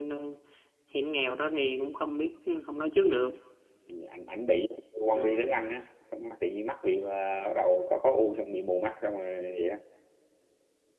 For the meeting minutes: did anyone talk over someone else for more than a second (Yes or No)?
No